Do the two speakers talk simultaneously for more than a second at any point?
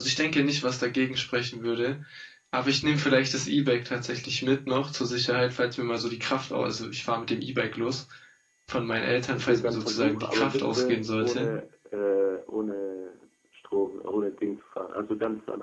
Yes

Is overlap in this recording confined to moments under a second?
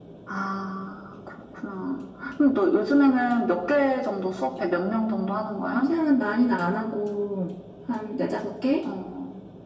Yes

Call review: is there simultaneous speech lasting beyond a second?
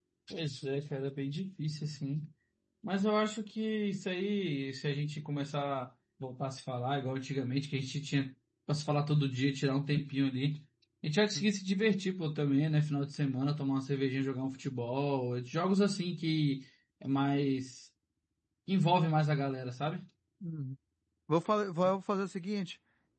No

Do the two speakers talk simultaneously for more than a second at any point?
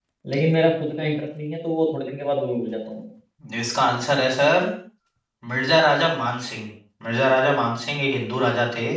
No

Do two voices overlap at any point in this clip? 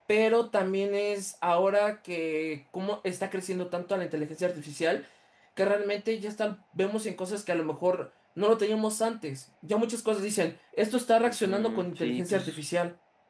Yes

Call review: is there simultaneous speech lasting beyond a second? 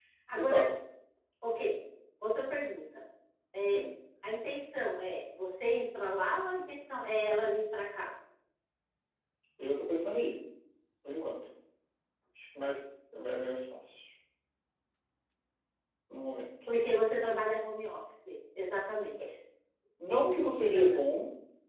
No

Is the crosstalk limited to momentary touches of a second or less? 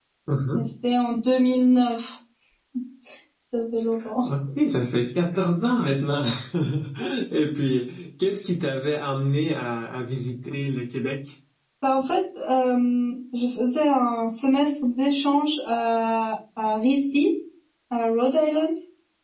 Yes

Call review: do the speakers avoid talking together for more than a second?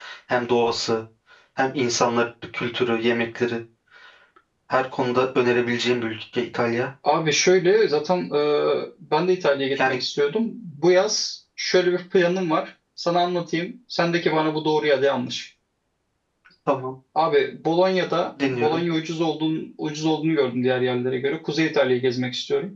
Yes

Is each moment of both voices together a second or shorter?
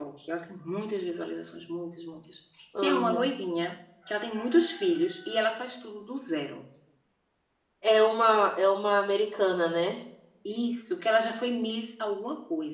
Yes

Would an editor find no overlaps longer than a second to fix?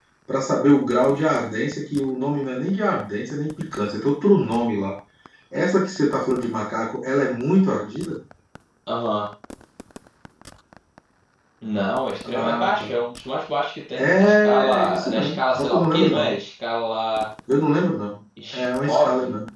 No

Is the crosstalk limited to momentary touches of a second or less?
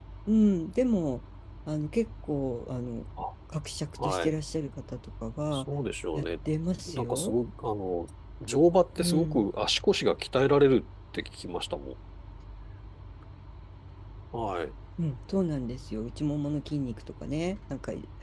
Yes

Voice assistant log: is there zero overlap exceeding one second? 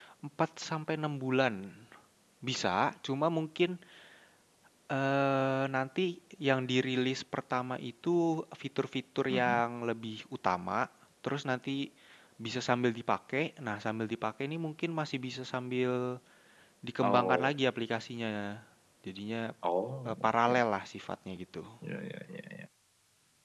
Yes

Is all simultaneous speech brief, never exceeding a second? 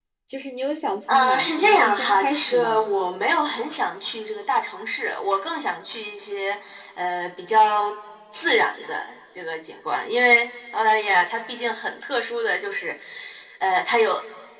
No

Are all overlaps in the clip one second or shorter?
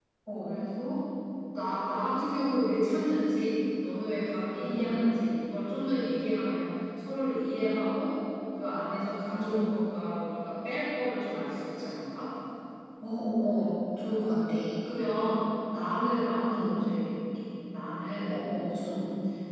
Yes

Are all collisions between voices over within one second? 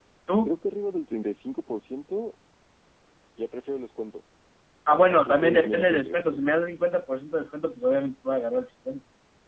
No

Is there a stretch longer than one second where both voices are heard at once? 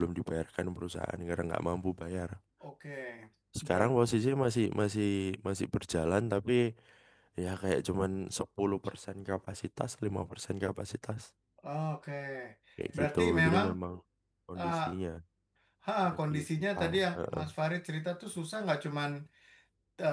Yes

